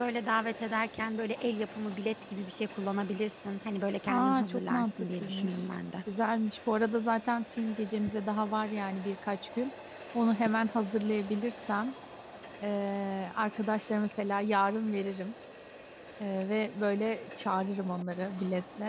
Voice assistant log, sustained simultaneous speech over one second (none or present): present